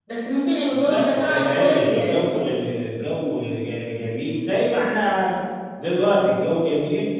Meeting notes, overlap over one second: present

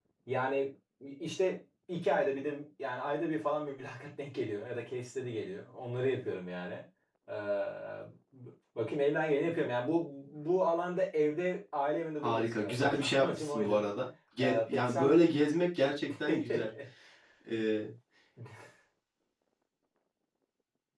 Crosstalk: present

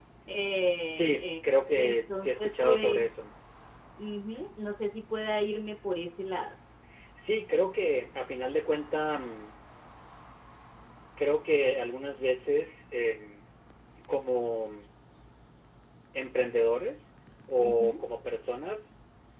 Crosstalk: present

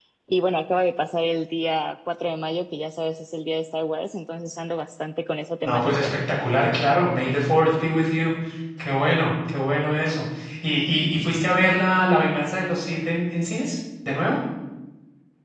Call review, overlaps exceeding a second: none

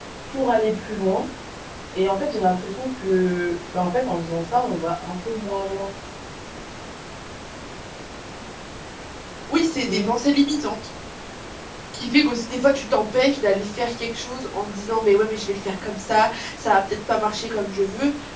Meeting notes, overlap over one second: none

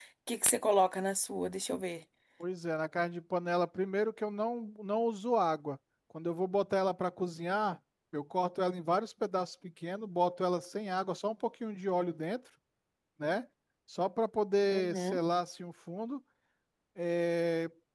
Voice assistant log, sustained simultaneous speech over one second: none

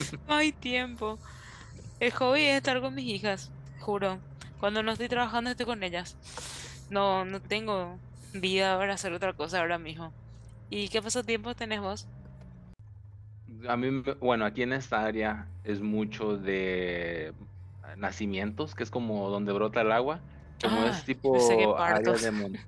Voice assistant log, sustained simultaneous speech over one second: present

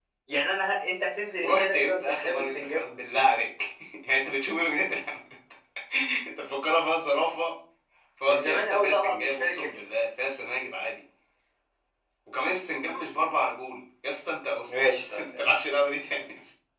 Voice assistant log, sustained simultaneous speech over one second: present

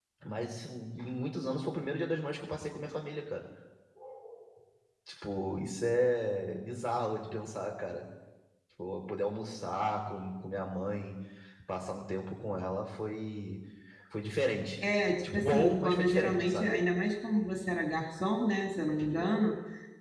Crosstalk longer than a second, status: present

